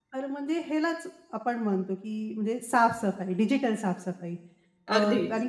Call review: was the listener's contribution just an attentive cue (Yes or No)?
Yes